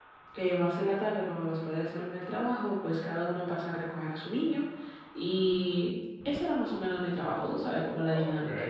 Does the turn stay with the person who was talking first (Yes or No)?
No